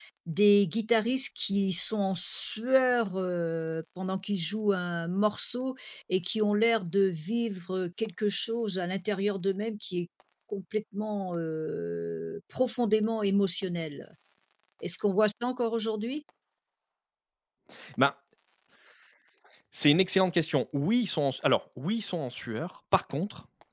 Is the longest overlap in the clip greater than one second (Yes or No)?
No